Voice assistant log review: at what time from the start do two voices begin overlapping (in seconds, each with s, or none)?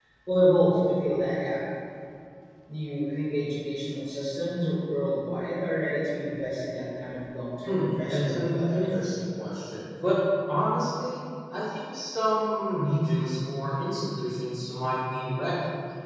7.7 s